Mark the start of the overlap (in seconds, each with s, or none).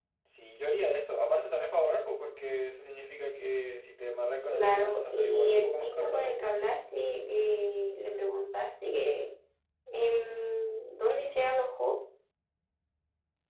4.5 s